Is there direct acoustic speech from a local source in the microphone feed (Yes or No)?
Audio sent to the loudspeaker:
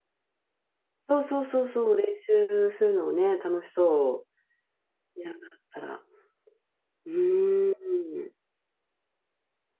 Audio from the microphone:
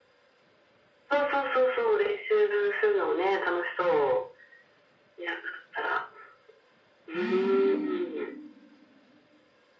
Yes